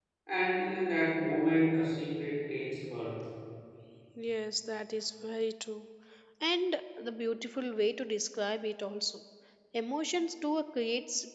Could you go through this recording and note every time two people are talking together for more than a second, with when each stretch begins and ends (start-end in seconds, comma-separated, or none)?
none